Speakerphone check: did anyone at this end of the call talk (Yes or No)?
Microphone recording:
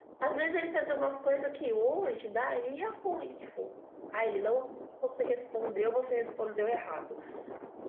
Yes